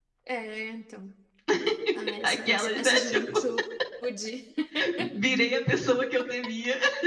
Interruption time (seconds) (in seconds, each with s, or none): 2.2 s